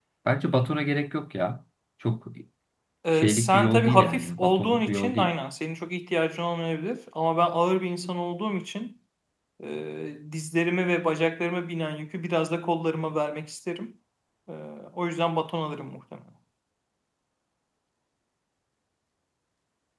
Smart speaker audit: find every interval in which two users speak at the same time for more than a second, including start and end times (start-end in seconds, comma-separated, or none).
3.1-5.3